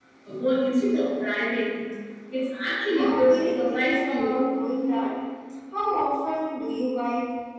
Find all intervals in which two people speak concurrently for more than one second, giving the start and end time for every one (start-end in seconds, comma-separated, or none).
3.0-4.4